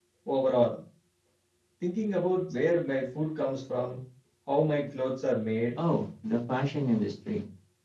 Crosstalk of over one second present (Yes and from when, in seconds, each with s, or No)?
No